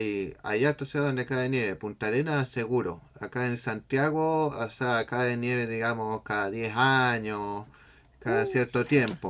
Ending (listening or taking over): listening